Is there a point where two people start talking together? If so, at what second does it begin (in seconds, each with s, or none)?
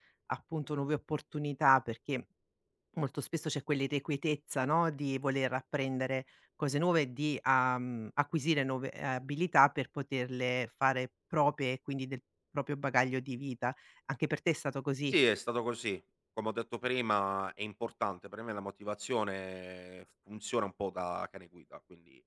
none